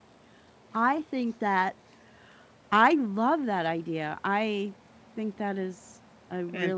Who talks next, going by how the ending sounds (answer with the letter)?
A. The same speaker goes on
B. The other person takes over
B